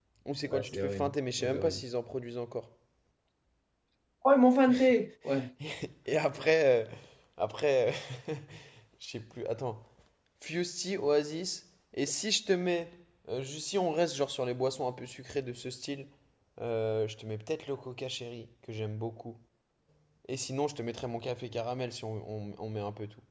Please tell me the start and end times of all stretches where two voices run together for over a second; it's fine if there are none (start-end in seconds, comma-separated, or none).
0.5-1.8